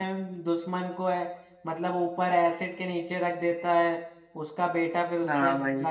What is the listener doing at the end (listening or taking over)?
taking over